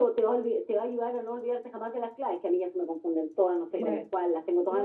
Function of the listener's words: taking over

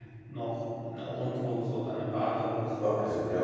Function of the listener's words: taking over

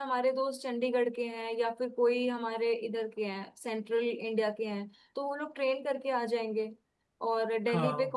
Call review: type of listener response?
listening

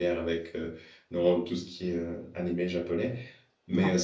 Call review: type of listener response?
listening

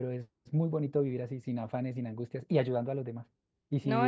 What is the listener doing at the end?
taking over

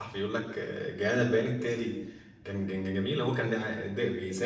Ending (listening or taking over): listening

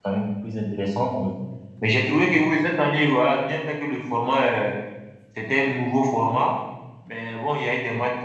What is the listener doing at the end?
listening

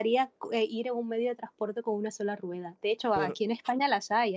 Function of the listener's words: listening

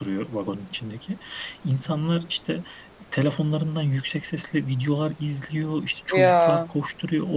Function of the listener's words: listening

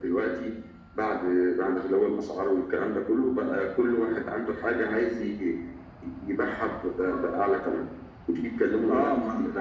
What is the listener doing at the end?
taking over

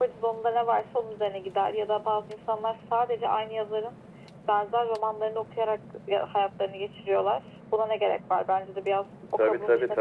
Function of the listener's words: taking over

